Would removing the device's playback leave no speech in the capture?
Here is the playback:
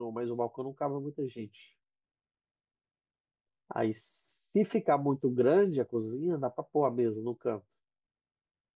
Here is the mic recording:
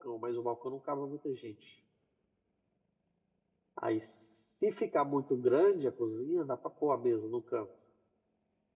Yes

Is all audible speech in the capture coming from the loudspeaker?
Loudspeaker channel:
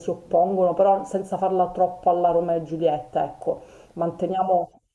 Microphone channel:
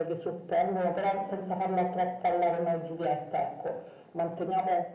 Yes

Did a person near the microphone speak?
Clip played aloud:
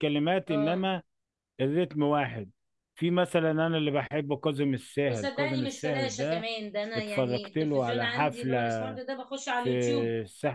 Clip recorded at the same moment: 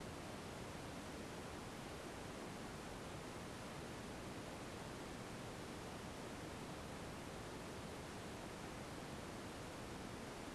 No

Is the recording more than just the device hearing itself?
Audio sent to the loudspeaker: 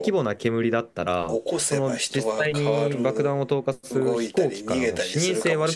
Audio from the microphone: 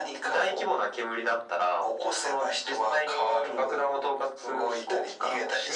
No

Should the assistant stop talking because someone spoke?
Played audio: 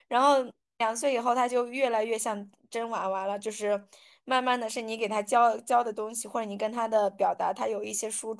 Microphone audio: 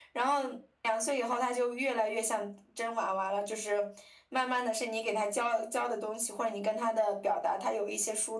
No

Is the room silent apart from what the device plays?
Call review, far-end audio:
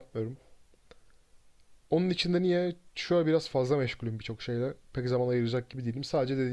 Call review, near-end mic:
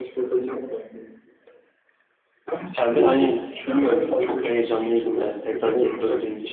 No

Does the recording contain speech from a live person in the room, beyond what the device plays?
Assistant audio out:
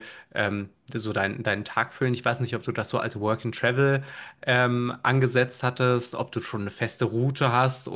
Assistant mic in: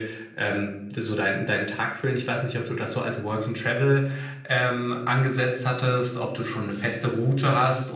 No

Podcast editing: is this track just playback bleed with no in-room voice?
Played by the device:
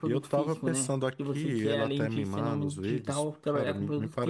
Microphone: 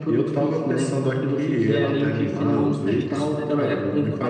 No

